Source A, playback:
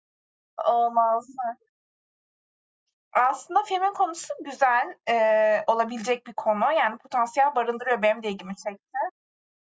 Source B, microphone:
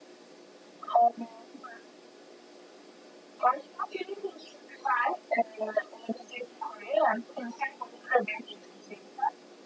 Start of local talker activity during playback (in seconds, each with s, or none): none